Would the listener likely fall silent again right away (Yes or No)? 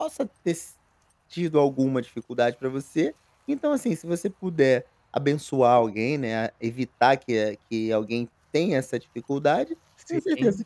Yes